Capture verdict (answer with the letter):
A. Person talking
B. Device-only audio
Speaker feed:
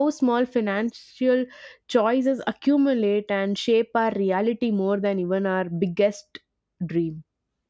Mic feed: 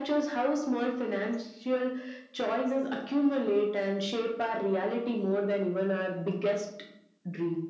B